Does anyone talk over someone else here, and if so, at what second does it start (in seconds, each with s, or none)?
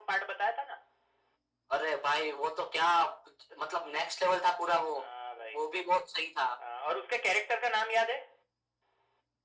none